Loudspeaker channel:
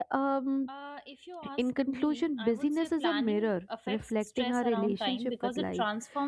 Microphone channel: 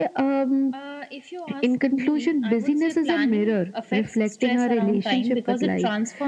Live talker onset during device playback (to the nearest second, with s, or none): none